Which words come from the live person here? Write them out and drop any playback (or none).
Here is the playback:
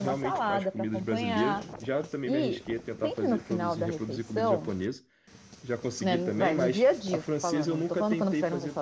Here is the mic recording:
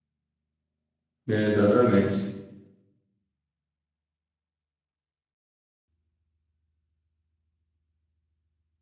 Né? Exatamente.